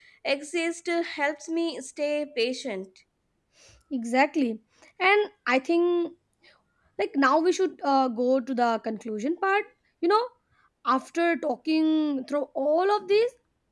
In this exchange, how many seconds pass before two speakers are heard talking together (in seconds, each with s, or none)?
none